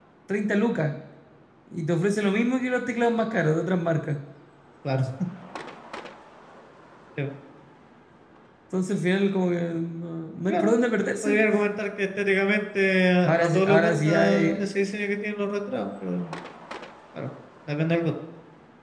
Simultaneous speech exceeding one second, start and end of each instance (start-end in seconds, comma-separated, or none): 13.2-14.5